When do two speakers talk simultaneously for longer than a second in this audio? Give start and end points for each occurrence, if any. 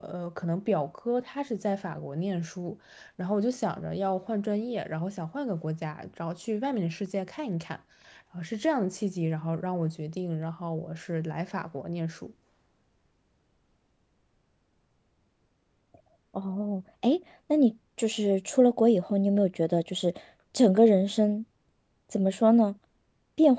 none

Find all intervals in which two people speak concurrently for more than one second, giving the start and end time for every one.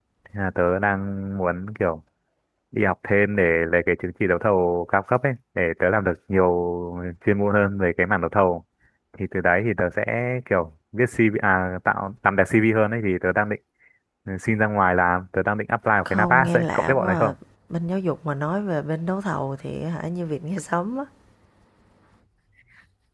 16.1-17.4

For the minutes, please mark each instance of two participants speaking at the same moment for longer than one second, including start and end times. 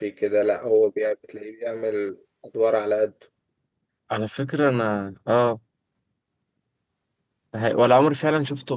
none

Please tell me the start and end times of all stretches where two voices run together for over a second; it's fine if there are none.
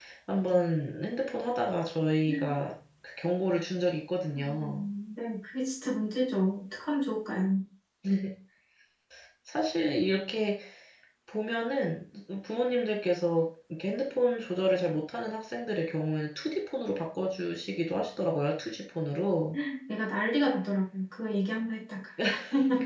none

